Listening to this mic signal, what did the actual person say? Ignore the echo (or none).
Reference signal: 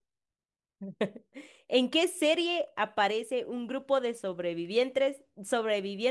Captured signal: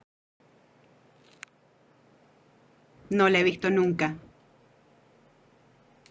no la he visto nunca.